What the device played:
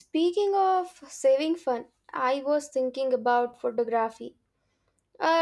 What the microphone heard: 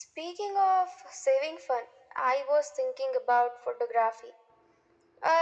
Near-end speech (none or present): none